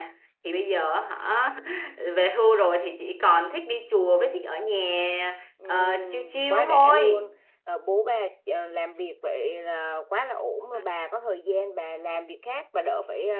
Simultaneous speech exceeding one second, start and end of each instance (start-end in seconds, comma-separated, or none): 5.7-7.3